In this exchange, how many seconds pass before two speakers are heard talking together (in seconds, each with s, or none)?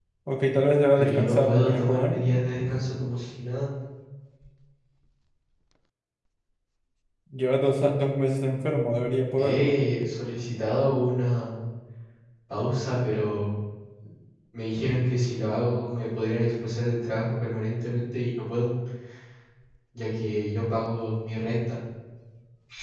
1.0 s